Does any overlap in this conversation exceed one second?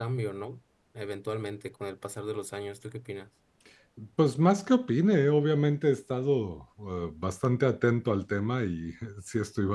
No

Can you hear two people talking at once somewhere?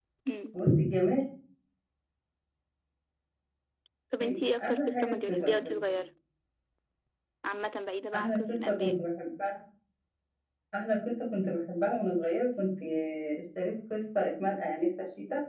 Yes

